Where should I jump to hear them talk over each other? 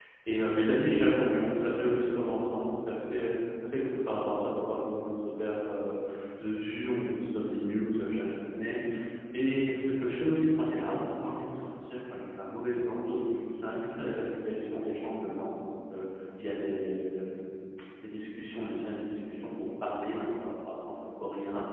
none

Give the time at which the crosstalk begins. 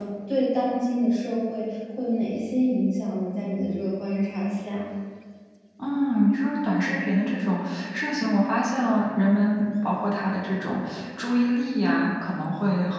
none

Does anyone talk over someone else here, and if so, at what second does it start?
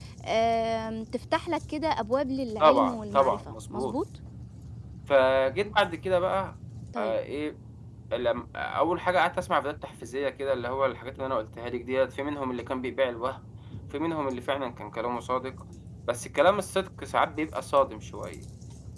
2.6 s

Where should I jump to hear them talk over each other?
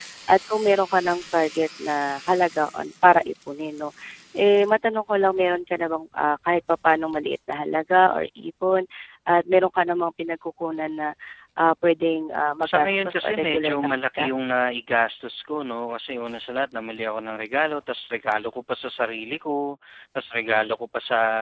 12.6 s

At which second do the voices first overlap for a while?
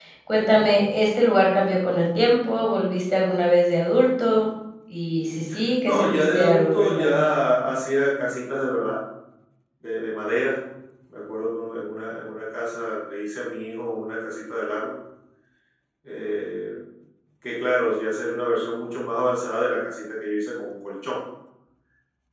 5.8 s

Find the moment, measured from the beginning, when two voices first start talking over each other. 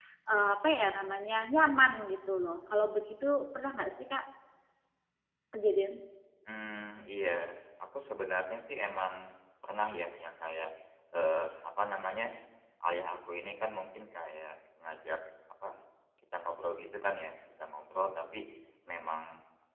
none

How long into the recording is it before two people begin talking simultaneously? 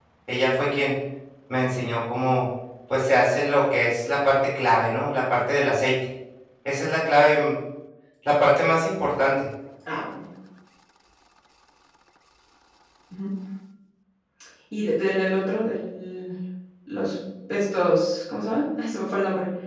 none

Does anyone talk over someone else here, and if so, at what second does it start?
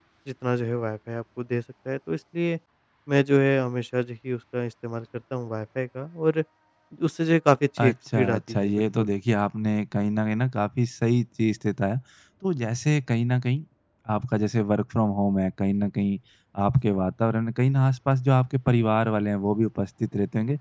7.8 s

